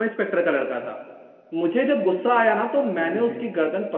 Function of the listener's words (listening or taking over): listening